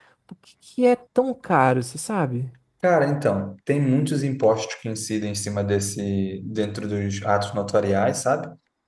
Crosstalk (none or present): none